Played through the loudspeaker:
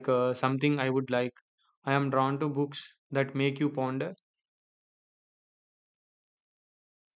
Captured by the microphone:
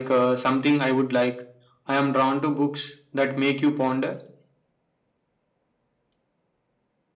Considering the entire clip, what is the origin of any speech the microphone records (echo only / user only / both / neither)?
echo only